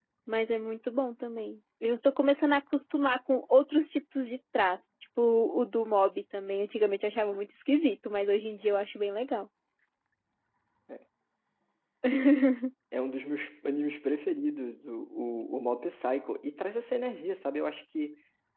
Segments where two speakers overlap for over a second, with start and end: none

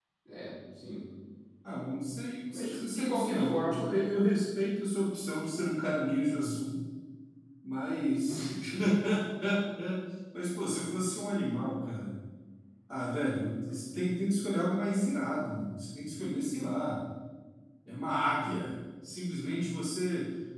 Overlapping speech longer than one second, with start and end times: 2.5-3.9

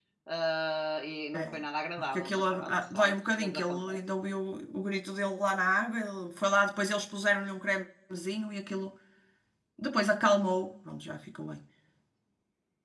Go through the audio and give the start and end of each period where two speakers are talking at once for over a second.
2.0-4.0

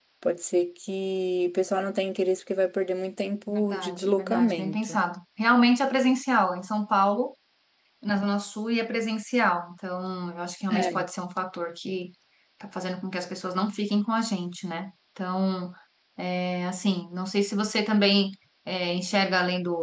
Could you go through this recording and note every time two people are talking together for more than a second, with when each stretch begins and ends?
3.5-5.0

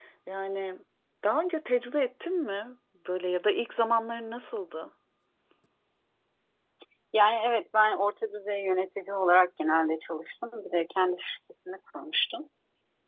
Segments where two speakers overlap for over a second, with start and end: none

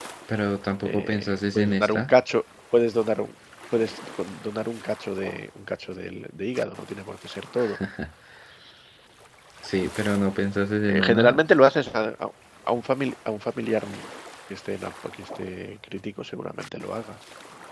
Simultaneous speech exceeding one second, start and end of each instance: 0.8-2.1

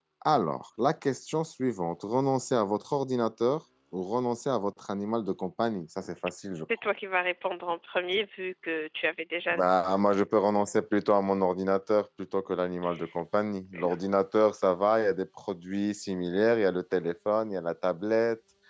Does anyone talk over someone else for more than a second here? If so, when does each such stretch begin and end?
none

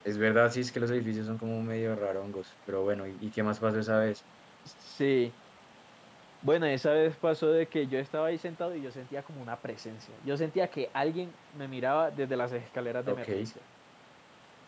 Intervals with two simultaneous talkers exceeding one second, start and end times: none

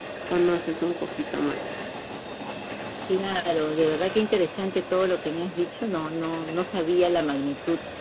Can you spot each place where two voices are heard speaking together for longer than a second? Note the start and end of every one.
none

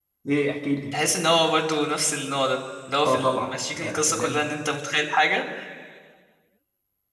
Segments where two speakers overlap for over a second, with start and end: 3.0-4.4

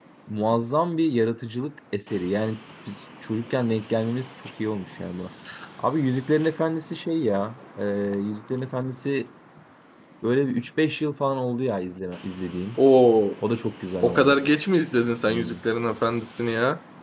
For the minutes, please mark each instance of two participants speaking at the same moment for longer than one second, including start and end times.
none

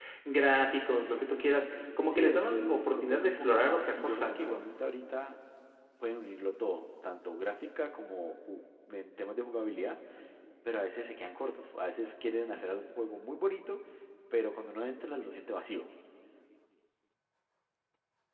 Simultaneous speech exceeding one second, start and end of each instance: 2.1-4.6

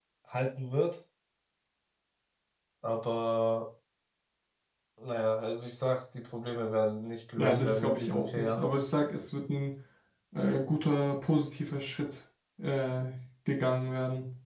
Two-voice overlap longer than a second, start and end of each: 7.4-8.6

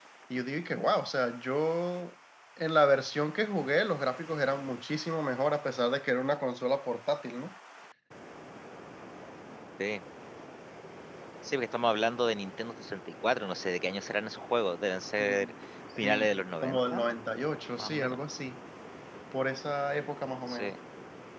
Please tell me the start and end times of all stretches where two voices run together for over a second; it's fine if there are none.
none

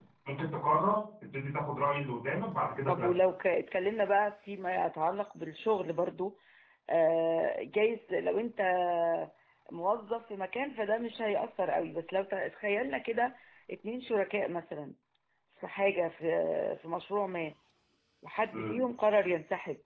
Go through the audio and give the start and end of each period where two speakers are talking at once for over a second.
none

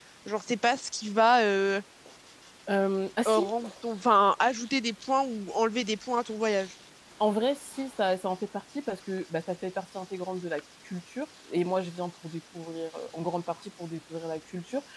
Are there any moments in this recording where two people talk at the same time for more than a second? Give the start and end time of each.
none

